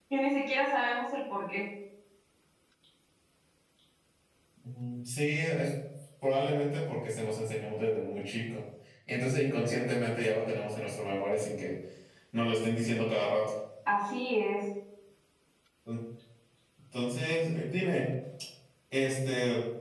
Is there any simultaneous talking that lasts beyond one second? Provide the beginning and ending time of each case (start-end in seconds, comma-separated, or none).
none